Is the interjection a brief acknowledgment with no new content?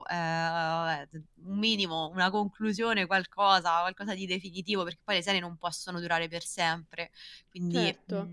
No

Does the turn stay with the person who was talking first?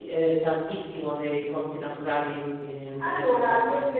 No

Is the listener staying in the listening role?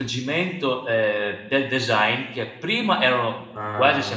Yes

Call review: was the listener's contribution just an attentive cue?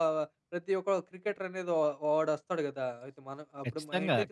No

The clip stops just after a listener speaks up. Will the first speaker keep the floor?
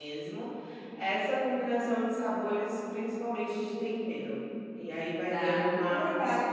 No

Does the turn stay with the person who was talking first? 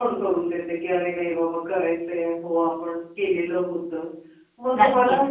Yes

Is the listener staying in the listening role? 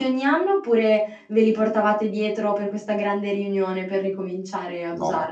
No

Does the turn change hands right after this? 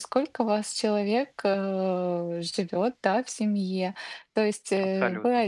No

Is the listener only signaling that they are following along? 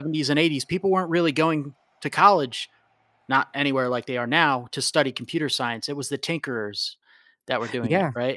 No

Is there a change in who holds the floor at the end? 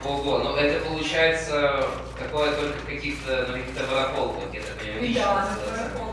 Yes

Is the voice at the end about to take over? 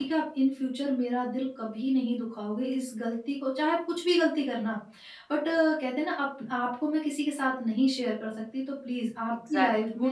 Yes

